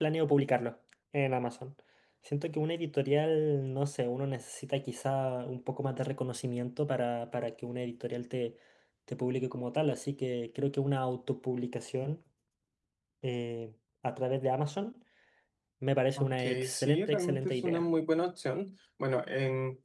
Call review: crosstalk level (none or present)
present